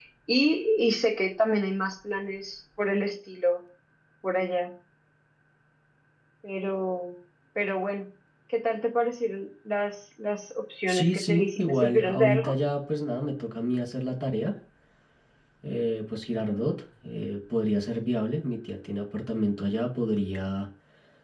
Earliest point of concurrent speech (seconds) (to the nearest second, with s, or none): 11 s